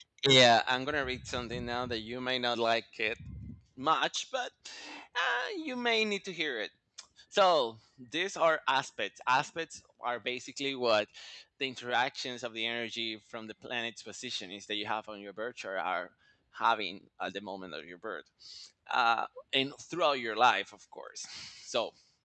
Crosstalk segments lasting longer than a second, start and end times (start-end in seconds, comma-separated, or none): none